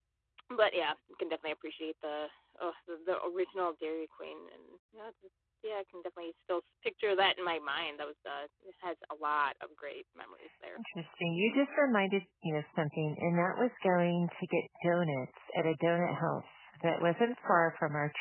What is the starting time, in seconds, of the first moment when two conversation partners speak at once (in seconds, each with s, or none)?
none